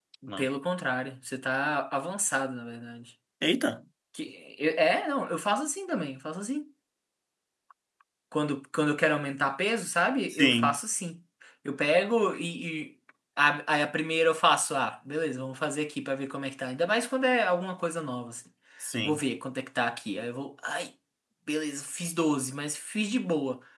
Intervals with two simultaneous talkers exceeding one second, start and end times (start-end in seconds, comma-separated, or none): none